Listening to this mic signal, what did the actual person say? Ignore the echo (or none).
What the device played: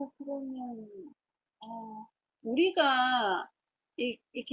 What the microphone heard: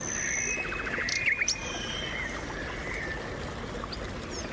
none